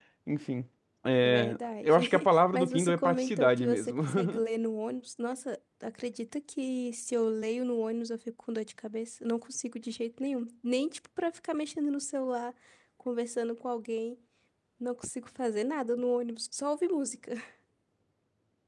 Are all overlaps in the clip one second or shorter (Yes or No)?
No